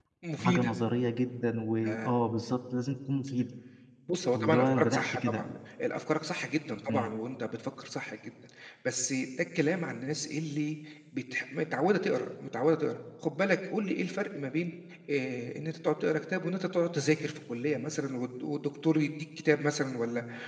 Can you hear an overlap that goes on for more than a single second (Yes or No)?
Yes